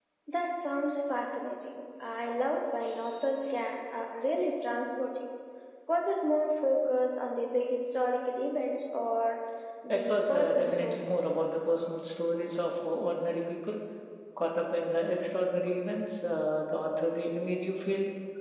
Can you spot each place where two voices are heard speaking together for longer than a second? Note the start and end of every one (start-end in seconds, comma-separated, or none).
9.9-11.3